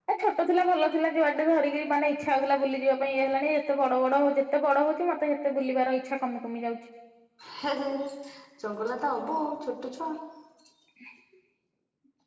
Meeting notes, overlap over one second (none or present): none